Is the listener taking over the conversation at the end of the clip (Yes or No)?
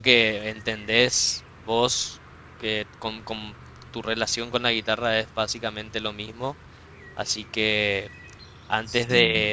No